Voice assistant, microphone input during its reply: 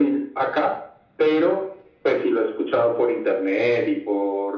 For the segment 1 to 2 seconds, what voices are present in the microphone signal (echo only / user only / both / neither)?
echo only